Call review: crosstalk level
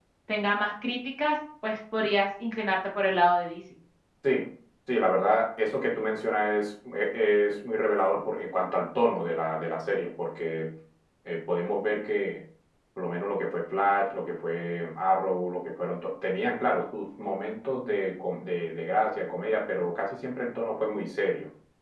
none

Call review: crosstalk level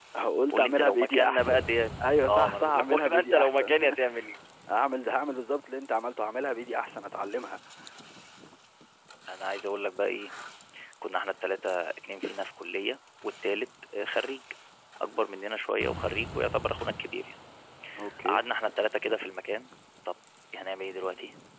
present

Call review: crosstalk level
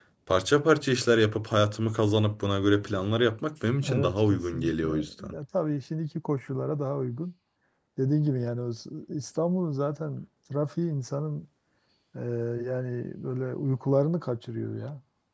present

